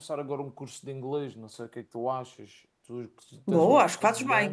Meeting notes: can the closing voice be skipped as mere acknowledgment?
No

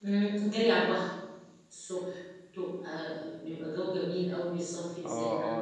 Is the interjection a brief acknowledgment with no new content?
No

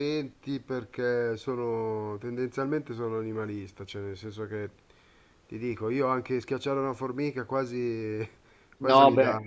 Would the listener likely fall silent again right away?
No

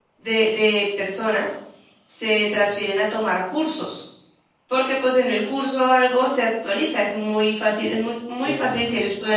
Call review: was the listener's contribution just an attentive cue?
Yes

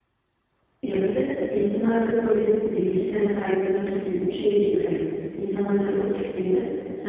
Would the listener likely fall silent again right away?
Yes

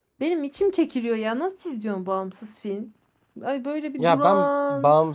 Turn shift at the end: Yes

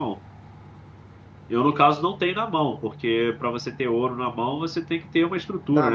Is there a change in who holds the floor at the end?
Yes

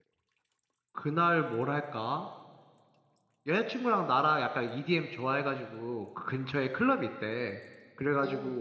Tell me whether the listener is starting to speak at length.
No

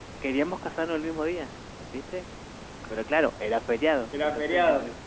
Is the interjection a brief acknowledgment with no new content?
Yes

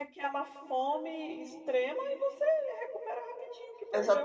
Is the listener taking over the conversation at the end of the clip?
Yes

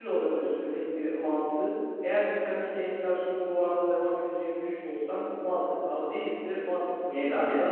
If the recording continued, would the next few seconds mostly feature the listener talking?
No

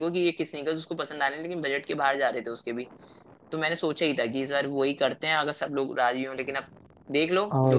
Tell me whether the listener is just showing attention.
No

